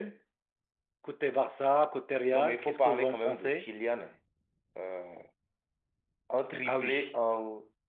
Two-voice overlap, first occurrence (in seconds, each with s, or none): 2.3 s